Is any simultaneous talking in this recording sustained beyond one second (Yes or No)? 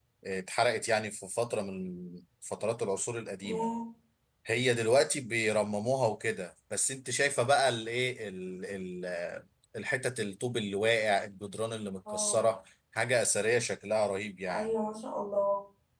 No